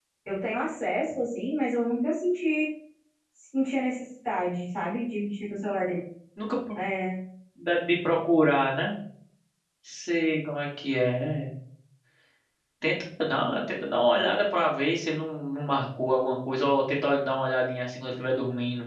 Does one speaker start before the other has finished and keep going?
No

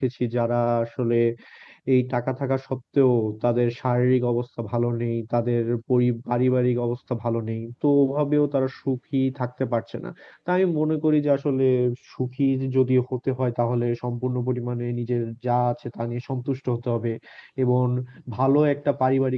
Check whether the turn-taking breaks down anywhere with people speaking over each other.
No

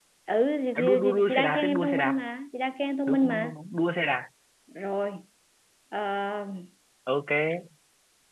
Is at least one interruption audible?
Yes, from 0.8 s

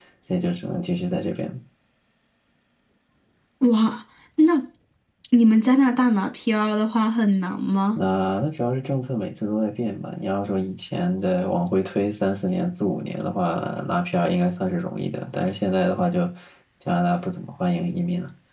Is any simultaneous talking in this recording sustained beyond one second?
No

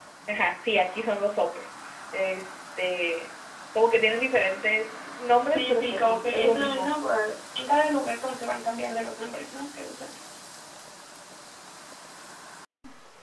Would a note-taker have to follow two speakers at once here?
Yes, from 5.4 s

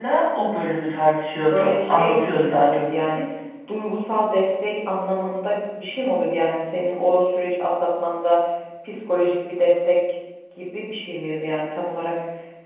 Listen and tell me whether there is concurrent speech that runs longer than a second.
Yes, from 1.5 s

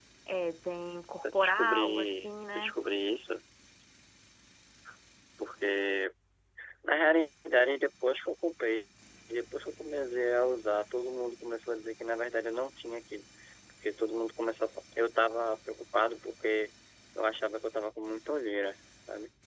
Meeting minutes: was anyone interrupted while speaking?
Yes, from 1.2 s

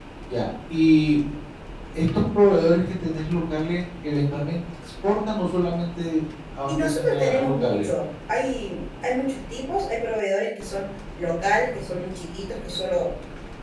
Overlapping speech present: Yes, from 6.7 s

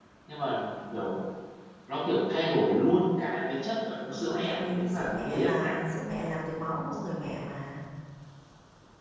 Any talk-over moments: Yes, from 4.1 s

